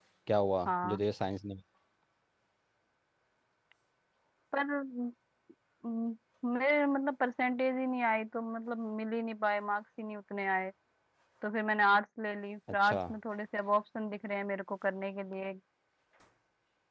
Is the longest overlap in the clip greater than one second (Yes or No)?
No